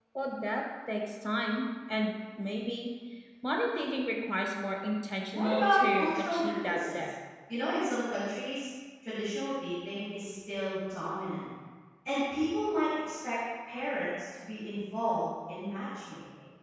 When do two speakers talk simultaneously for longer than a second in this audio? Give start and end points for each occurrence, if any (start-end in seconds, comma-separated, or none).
5.3-7.1